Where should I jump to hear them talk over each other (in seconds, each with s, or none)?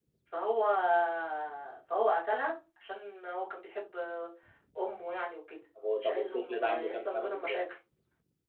5.8 s